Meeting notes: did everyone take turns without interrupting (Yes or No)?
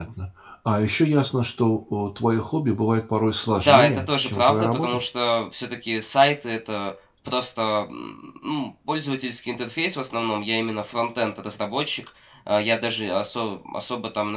No